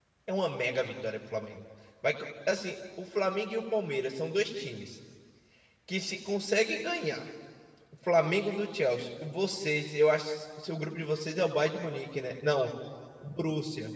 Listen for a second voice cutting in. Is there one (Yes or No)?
No